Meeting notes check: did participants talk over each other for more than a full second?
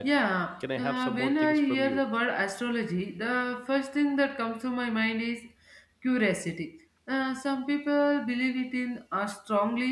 Yes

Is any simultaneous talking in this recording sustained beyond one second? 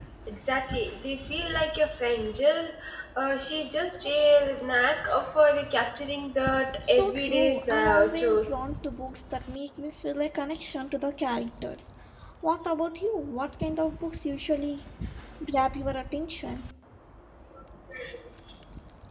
Yes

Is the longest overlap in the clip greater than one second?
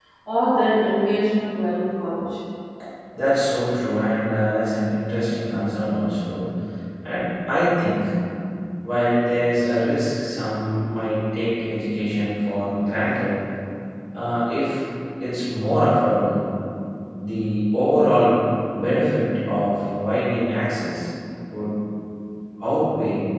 No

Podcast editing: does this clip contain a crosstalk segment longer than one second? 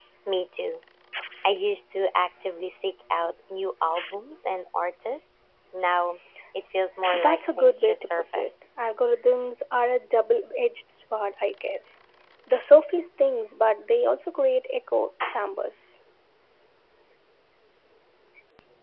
Yes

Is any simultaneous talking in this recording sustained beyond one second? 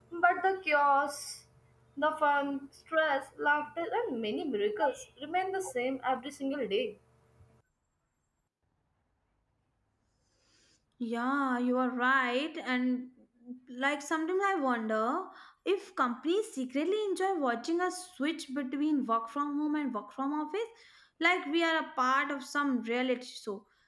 No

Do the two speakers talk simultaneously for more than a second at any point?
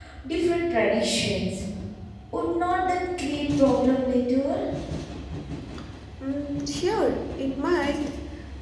No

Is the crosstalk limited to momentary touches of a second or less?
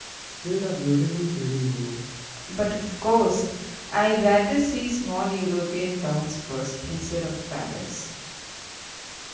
Yes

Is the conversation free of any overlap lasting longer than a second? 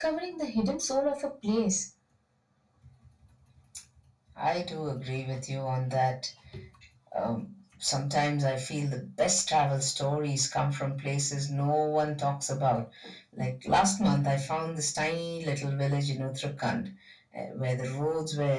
Yes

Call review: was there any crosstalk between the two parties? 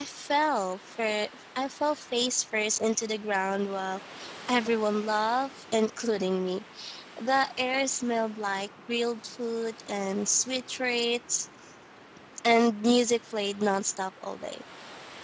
No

